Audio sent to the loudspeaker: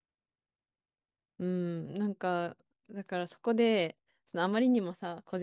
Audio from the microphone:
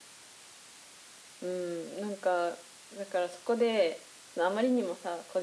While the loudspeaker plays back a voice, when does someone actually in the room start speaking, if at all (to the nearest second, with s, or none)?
none